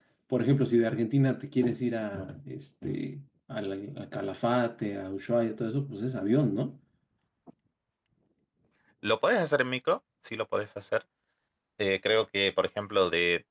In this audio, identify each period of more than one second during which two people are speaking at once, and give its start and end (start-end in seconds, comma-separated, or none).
none